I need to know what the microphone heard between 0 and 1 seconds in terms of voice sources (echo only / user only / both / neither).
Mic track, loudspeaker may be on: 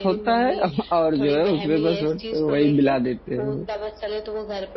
both